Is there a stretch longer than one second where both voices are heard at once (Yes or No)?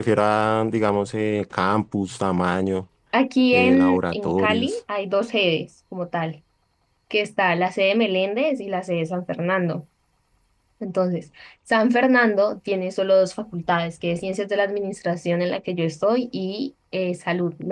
Yes